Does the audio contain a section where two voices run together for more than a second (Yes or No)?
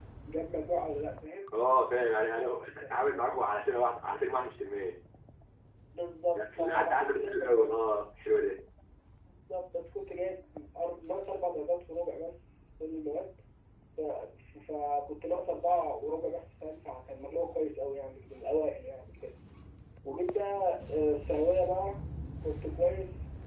Yes